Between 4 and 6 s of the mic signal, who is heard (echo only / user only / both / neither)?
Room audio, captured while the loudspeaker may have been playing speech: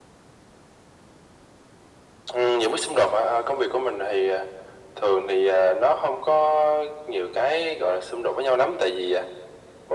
echo only